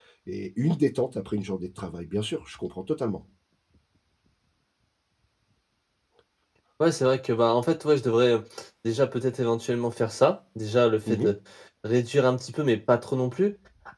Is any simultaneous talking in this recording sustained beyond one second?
No

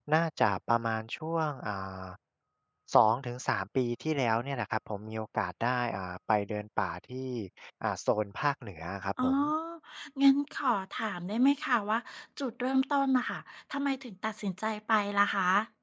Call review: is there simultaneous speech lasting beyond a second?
No

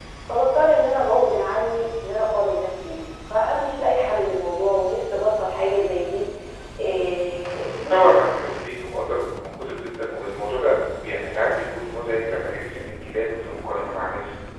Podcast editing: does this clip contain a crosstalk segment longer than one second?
No

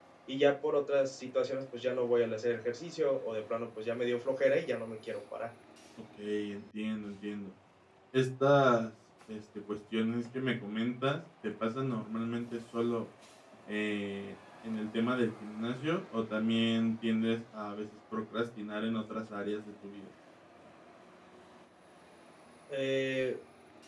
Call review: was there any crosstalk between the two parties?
No

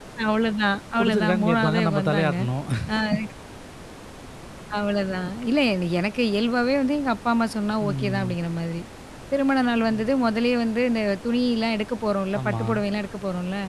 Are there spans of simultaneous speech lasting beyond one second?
Yes, from 1.0 s

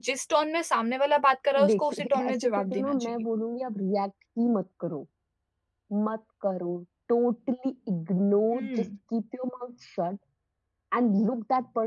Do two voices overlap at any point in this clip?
Yes, from 1.7 s

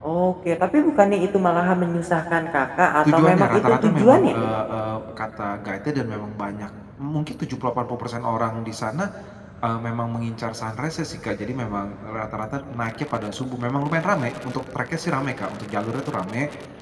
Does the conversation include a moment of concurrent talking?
Yes, from 3.0 s

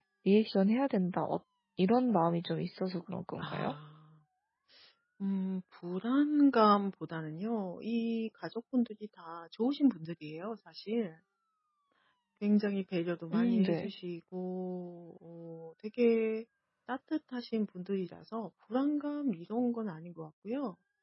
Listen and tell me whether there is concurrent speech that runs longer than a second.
No

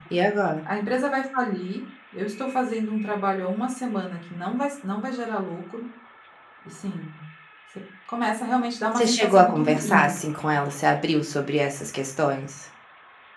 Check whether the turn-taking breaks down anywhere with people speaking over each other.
Yes, from 9.0 s

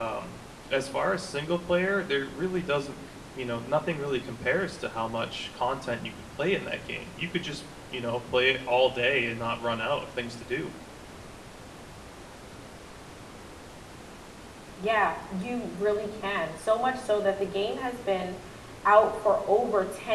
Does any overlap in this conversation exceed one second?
No

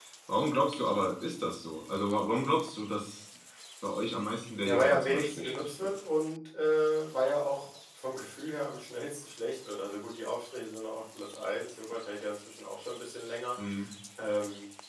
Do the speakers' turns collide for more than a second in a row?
Yes, from 4.6 s

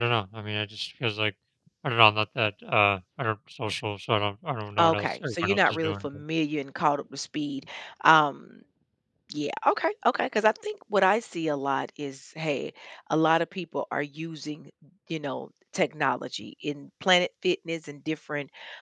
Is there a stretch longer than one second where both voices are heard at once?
Yes, from 4.8 s

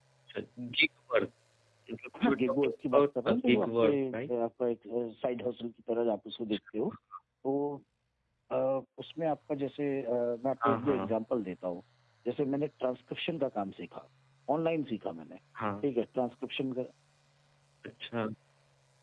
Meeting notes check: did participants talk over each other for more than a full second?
Yes, from 2.2 s

